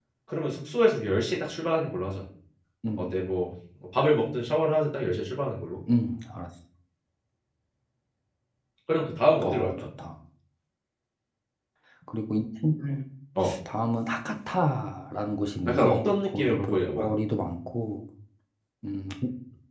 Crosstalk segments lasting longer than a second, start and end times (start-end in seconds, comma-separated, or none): 15.6-17.1